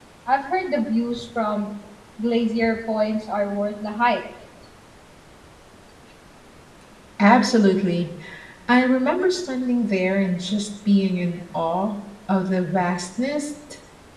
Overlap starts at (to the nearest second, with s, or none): none